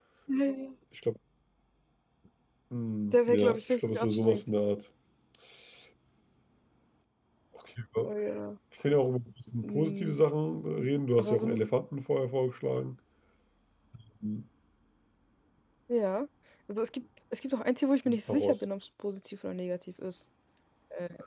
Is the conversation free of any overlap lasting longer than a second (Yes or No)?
No